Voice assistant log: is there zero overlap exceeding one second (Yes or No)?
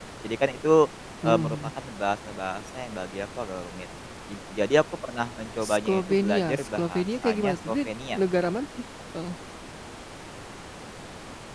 No